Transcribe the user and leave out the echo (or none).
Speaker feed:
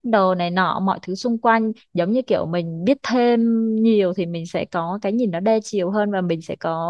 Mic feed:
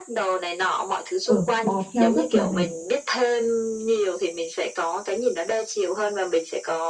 ở bò theo rất là mệt